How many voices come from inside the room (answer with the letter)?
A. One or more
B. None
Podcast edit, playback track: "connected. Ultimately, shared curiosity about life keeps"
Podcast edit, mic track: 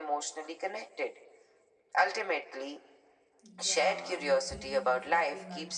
A